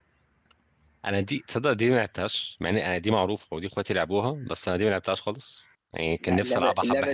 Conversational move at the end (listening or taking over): taking over